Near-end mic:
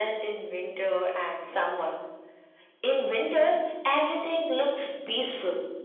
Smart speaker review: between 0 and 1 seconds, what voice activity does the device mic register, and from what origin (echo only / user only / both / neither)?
echo only